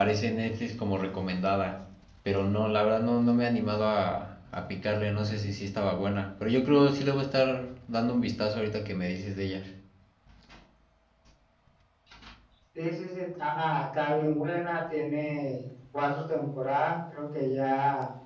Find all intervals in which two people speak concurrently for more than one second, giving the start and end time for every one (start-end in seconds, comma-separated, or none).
none